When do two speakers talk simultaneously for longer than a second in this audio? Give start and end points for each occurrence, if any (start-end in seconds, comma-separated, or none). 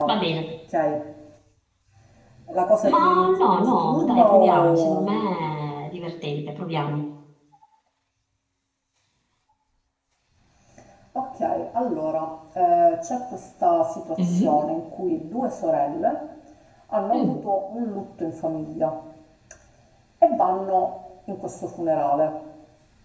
3.7-5.2